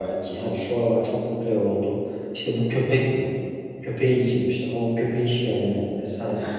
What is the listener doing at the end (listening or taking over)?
taking over